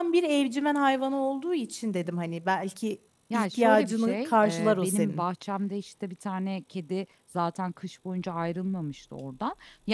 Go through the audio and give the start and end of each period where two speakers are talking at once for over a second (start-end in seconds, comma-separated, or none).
3.3-5.2